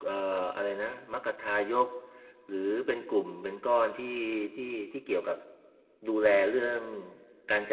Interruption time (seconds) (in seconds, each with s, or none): none